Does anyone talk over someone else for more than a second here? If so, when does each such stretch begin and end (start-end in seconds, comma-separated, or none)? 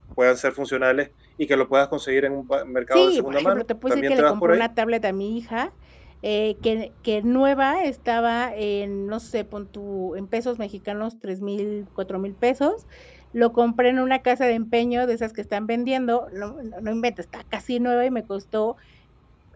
2.9-4.6